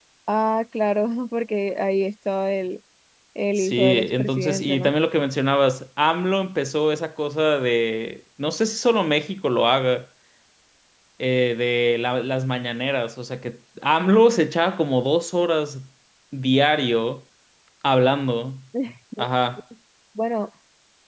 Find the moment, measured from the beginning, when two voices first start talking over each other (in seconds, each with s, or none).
3.6 s